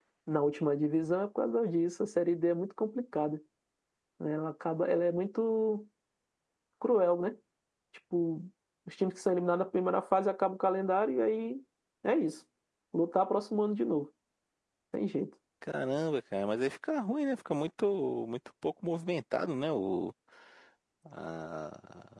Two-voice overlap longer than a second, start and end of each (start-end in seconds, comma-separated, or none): none